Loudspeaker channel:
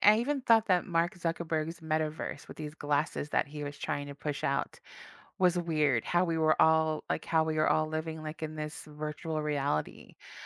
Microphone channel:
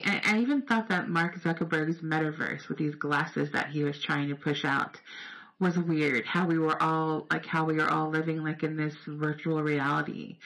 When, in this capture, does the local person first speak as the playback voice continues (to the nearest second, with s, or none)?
none